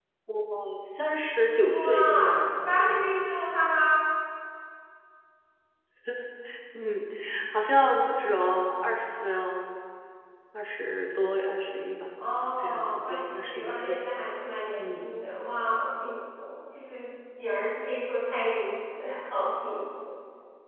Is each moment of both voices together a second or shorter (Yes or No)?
No